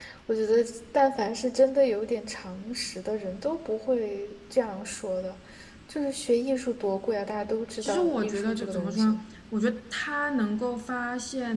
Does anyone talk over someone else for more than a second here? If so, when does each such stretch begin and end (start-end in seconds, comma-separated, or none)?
7.8-9.2